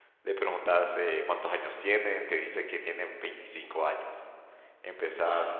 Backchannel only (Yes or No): Yes